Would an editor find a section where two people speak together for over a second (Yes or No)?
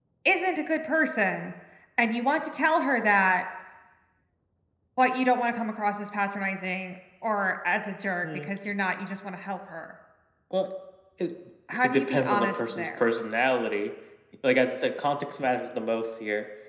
Yes